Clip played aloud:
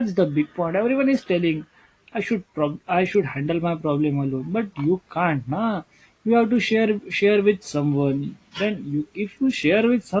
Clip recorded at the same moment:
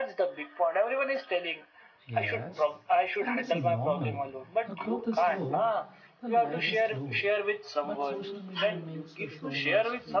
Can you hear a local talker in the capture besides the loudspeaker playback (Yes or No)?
Yes